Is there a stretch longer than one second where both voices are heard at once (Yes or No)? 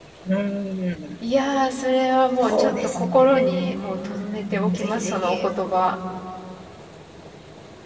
Yes